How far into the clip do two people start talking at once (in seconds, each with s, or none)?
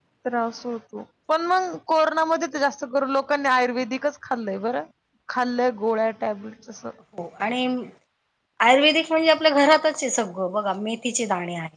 none